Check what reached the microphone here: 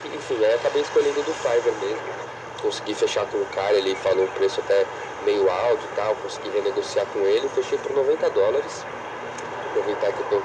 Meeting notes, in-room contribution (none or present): none